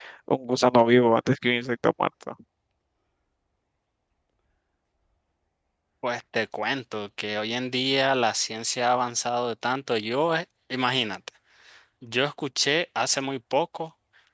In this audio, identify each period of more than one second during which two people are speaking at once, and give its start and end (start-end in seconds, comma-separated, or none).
none